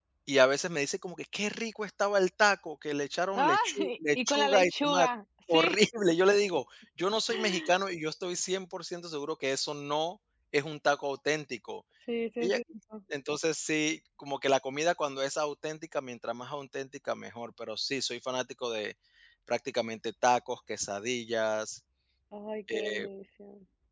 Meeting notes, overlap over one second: present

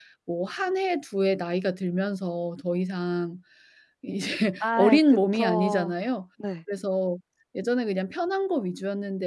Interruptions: present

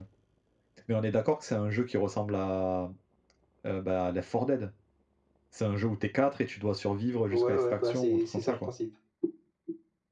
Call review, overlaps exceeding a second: present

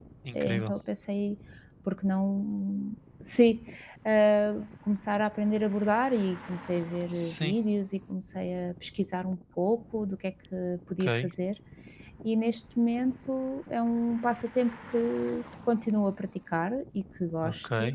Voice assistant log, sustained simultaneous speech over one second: none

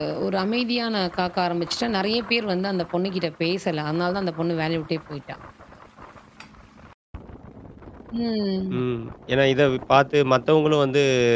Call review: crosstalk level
none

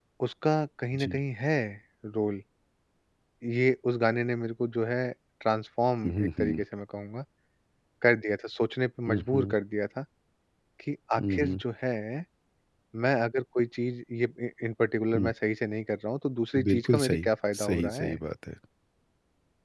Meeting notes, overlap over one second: present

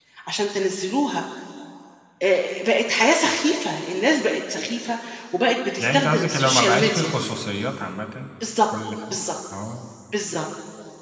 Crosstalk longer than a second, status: present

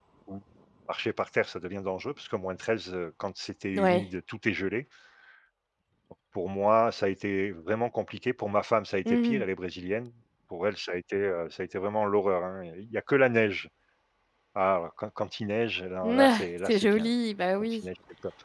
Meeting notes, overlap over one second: none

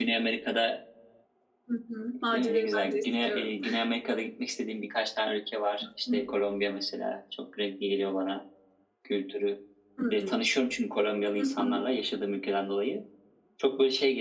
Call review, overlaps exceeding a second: present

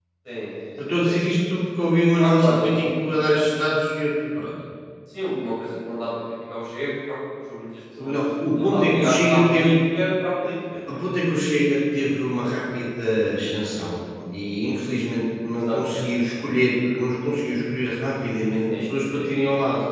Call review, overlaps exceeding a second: present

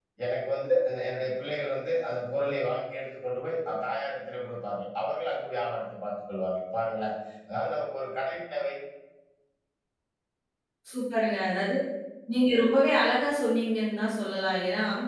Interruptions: none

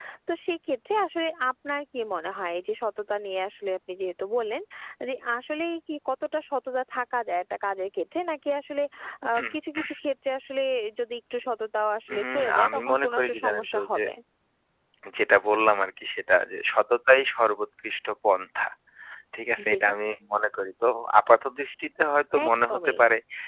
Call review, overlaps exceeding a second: present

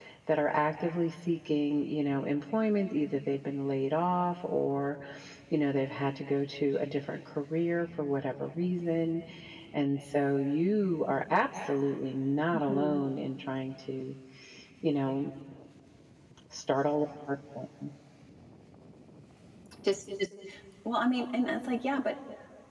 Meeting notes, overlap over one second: none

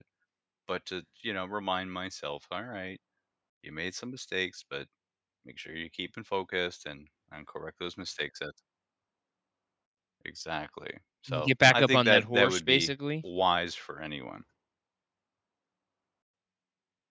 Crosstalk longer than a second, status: present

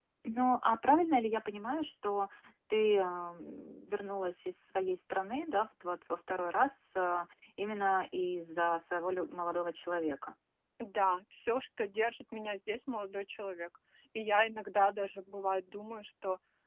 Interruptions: none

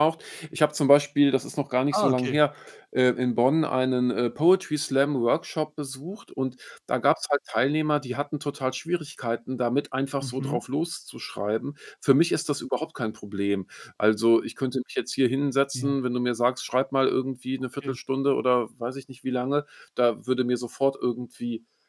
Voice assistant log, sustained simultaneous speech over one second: none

